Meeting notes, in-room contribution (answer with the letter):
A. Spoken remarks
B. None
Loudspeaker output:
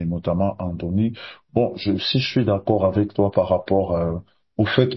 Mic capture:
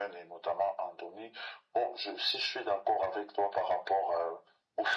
B